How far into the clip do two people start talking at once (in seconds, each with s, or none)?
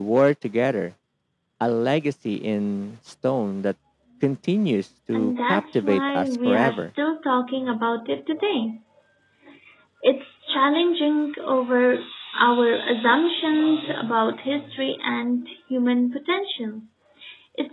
5.1 s